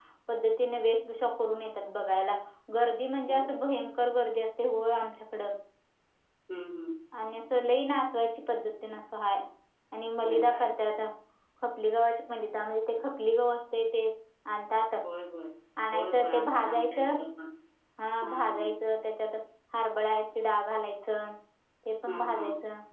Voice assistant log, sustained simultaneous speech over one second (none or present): present